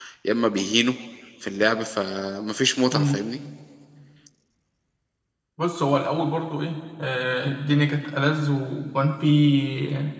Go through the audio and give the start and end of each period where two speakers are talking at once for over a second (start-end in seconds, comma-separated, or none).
none